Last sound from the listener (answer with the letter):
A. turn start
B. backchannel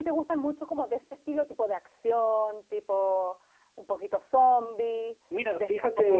A